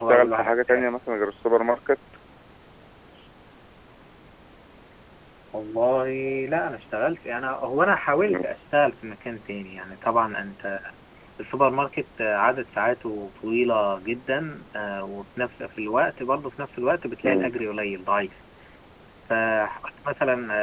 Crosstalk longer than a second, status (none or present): none